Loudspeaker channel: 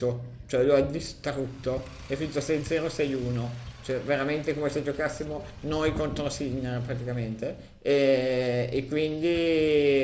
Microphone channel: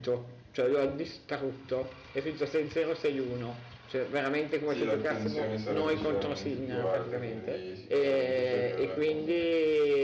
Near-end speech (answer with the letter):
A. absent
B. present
B